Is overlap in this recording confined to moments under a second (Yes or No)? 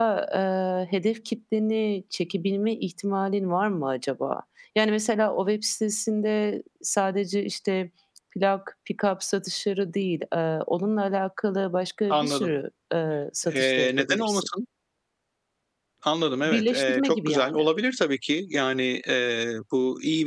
No